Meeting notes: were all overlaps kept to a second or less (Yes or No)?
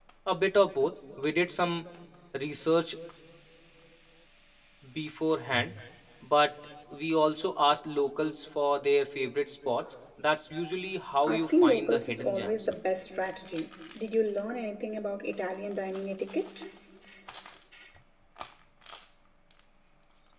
No